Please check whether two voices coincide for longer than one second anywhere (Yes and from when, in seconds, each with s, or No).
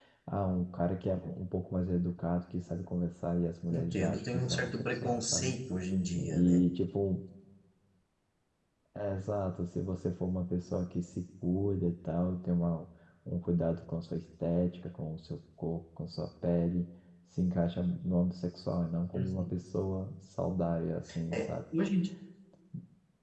Yes, from 3.7 s